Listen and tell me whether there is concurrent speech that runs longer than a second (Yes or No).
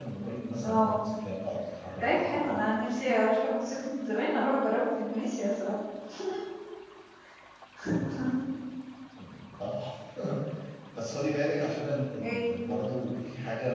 No